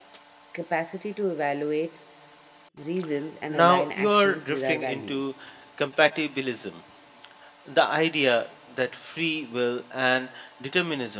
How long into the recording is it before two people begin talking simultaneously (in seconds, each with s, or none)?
3.5 s